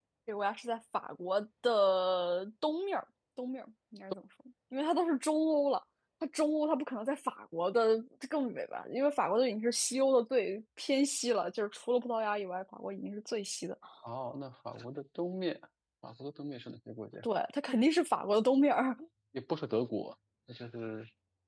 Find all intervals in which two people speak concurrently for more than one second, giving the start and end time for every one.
none

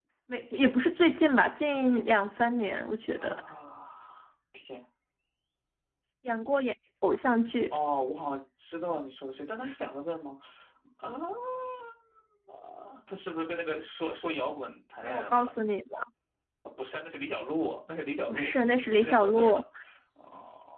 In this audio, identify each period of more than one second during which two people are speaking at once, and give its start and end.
18.3-19.6

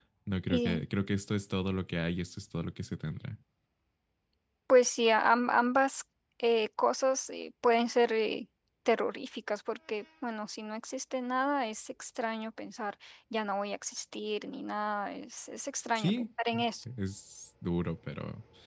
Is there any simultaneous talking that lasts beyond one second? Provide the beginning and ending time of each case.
none

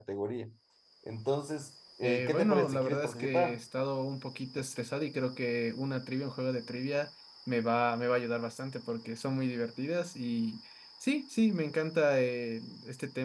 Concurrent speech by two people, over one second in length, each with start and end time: 2.0-3.6

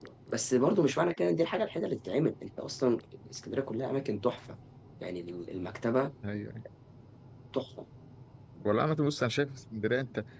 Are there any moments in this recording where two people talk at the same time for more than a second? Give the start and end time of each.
none

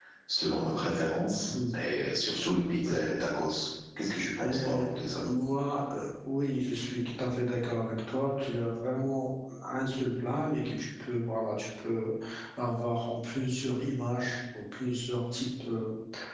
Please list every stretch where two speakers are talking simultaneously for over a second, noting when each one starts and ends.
none

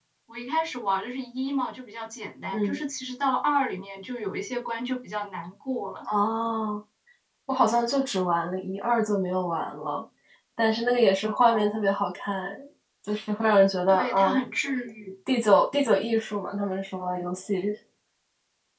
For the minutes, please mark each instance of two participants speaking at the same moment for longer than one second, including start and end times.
none

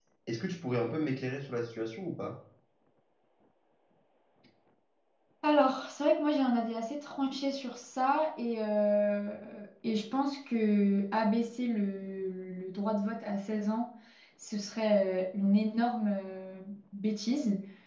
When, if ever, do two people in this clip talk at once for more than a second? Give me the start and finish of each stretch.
none

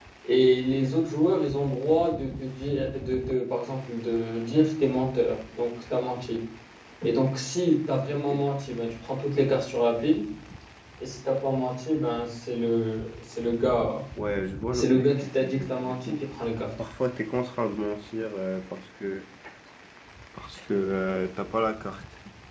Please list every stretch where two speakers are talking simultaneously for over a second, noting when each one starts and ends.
14.7-16.2

